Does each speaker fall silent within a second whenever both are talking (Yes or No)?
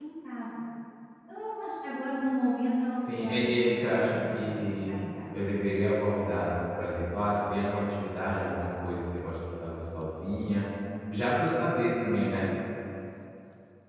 No